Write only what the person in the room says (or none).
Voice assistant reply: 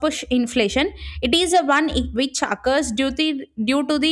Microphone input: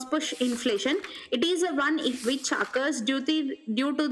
none